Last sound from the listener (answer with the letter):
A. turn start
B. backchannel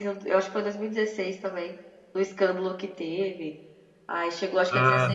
B